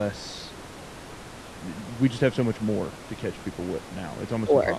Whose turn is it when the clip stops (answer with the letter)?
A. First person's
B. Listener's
A